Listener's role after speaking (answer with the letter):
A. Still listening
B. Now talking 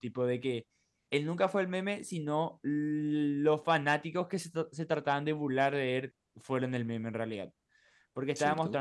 A